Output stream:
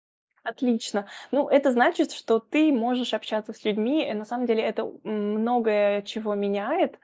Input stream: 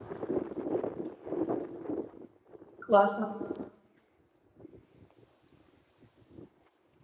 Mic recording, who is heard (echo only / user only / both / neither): user only